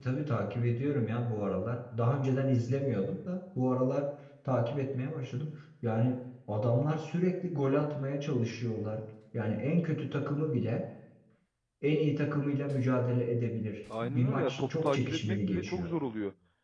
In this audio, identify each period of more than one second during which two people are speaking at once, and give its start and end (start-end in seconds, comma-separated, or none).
14.0-15.9